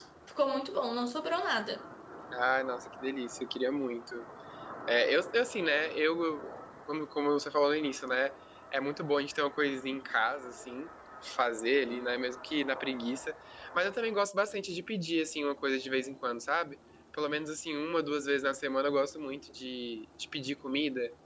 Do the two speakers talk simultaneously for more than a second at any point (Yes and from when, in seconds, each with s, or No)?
No